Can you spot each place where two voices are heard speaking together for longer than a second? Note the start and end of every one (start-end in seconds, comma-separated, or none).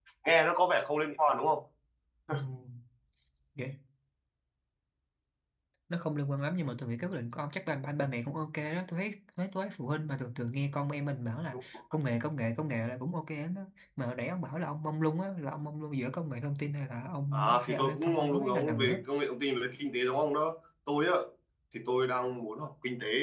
17.3-19.1